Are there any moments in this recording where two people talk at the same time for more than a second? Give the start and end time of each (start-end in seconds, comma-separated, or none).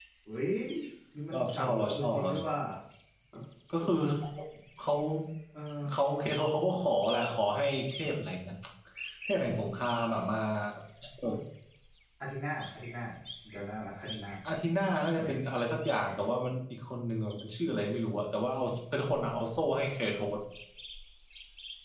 1.3-2.6